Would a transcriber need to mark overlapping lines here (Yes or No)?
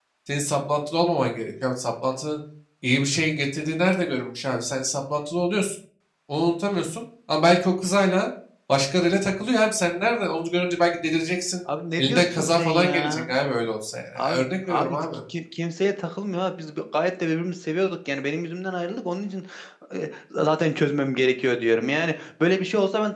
Yes